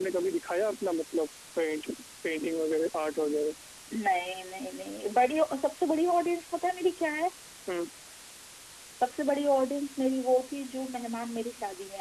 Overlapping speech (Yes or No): No